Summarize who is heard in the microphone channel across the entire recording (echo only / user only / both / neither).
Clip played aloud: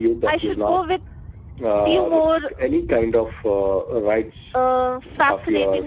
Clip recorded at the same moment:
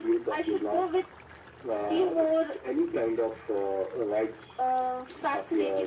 echo only